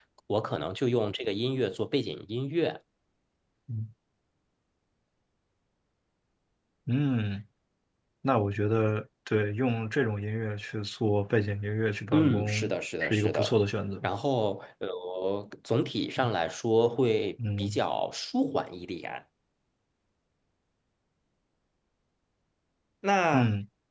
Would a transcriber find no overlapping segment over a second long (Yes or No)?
No